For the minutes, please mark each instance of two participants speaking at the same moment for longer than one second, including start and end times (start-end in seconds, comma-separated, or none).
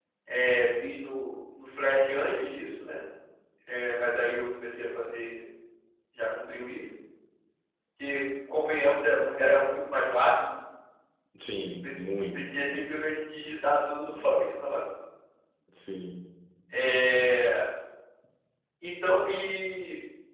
none